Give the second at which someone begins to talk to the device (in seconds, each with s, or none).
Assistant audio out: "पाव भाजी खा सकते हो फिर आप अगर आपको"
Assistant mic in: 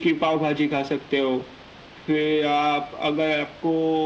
none